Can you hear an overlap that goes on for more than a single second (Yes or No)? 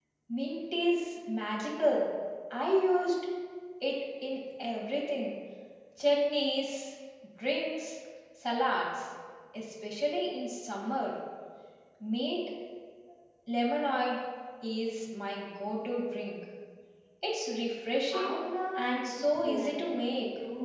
Yes